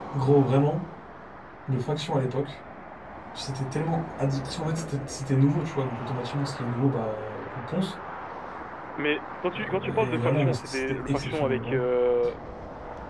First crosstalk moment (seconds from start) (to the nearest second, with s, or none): 10 s